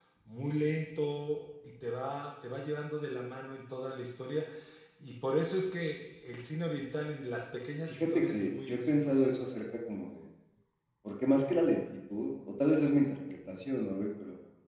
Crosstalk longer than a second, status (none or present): present